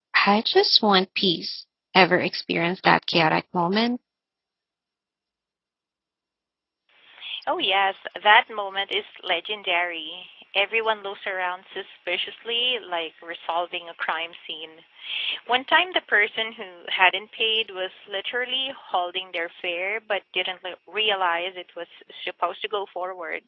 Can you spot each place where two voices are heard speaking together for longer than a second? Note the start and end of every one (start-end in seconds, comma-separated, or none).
none